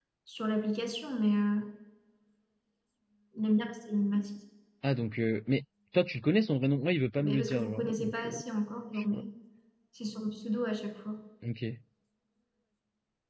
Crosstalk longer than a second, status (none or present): present